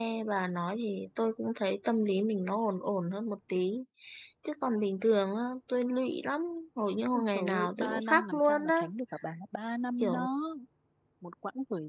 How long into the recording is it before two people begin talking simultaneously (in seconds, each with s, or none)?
7.1 s